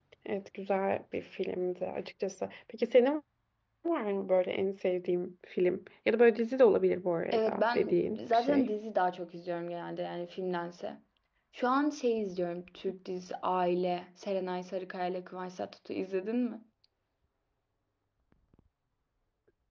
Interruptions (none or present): present